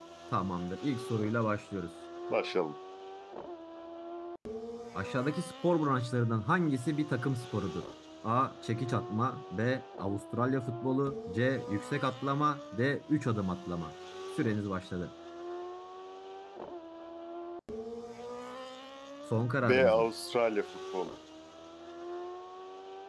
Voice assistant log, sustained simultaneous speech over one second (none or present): none